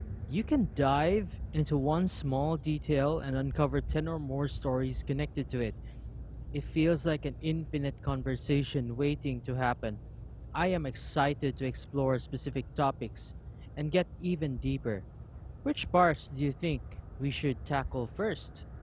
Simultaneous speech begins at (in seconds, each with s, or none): none